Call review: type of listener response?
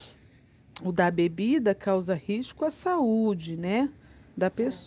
listening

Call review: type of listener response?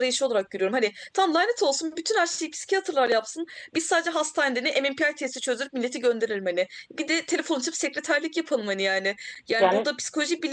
listening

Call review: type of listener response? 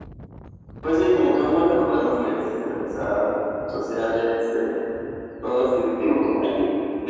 taking over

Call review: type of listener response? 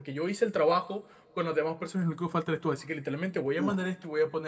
listening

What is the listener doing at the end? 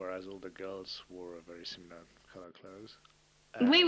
taking over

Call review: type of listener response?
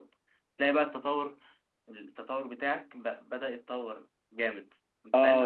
taking over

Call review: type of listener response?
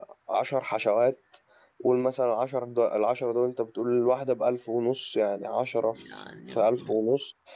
listening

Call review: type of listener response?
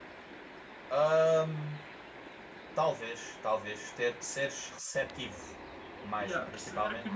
taking over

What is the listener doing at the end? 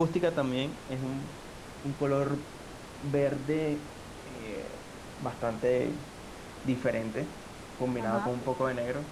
listening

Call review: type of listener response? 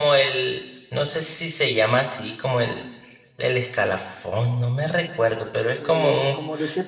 taking over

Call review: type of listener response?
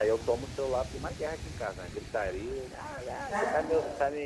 listening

